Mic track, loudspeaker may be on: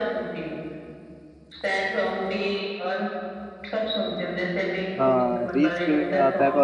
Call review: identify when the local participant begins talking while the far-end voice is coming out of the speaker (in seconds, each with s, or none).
5.0 s